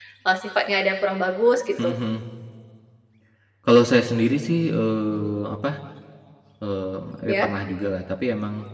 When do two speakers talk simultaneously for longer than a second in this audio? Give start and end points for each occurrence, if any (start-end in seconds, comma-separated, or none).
none